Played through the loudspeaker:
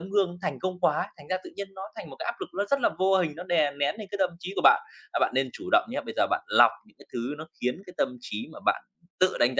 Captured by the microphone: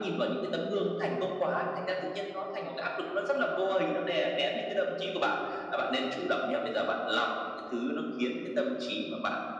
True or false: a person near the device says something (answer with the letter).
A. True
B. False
B